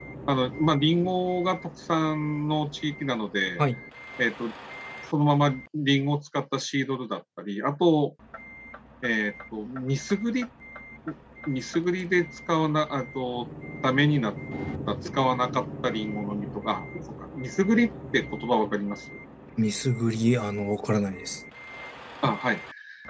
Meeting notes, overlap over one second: none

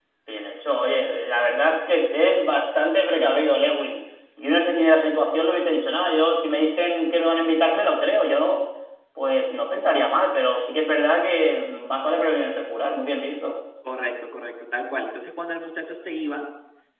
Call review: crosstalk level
none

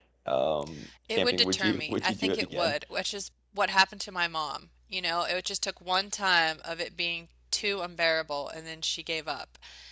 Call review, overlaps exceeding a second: present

